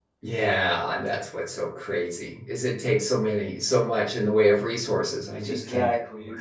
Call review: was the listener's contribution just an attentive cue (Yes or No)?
No